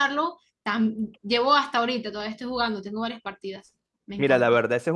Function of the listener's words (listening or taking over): taking over